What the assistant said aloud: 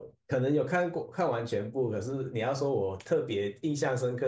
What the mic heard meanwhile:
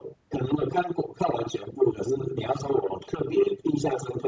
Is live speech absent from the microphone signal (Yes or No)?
Yes